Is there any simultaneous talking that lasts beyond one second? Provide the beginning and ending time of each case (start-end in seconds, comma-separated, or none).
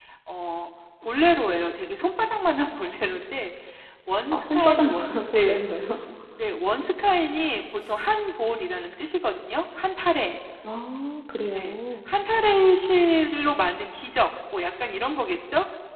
4.3-5.6